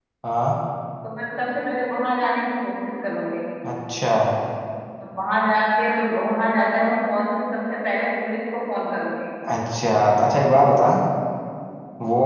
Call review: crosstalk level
none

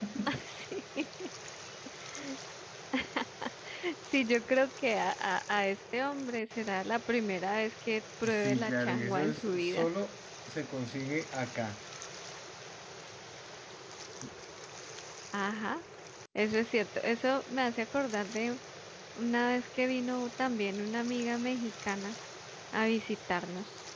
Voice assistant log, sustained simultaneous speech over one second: present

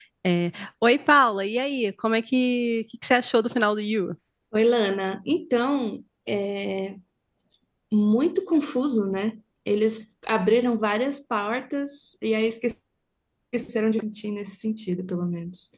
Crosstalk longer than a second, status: none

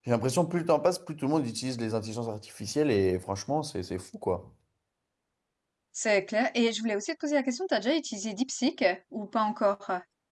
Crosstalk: none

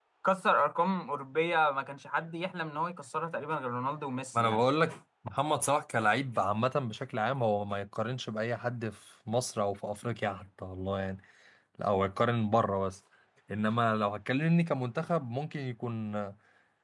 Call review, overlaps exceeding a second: none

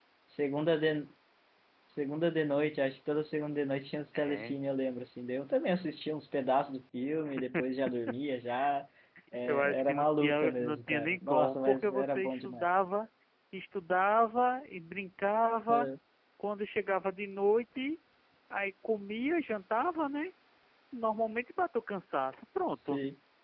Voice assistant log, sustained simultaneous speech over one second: present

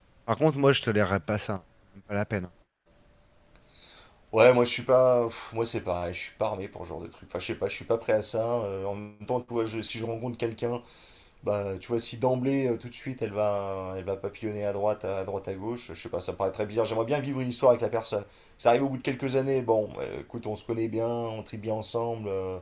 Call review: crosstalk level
none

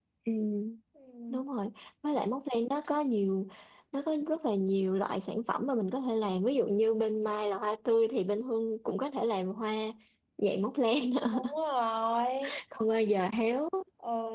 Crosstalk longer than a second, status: none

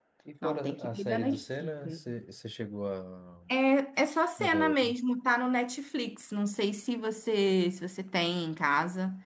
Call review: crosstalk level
present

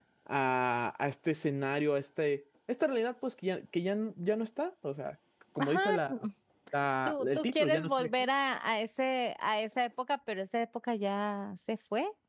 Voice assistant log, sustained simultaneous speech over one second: present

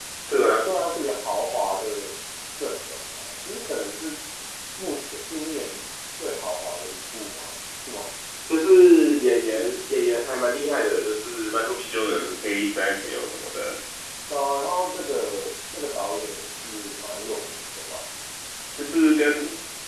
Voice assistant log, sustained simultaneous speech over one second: none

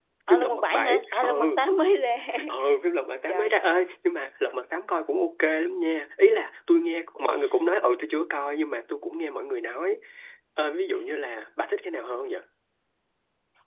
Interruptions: present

